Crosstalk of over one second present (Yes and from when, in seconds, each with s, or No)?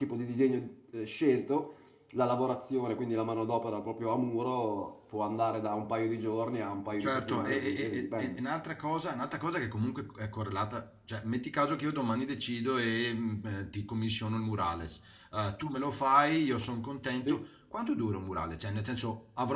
Yes, from 7.0 s